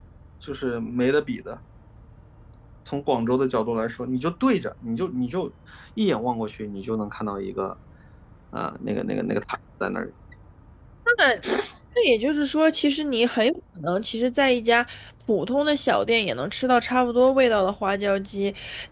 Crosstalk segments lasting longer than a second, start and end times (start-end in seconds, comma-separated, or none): none